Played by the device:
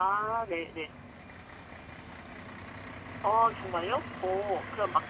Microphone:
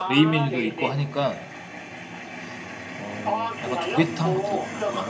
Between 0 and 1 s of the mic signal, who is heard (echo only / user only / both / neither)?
both